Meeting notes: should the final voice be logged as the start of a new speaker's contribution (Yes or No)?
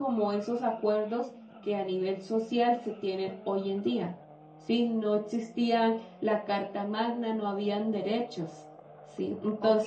Yes